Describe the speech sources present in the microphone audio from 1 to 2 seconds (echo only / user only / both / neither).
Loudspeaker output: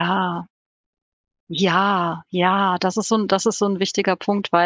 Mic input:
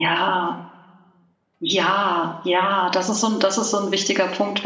echo only